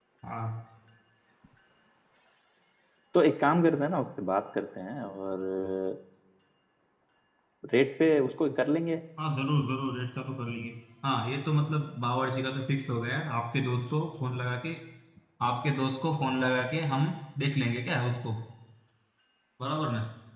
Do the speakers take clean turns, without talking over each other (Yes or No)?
Yes